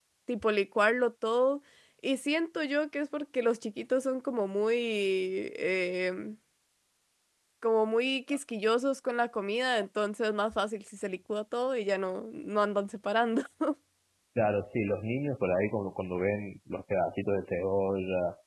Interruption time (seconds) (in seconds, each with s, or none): none